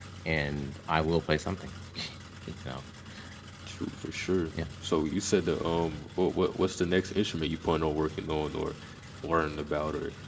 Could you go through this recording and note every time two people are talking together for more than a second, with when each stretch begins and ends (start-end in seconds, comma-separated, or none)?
none